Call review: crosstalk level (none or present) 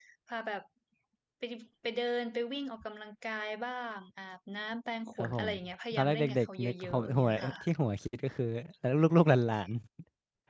present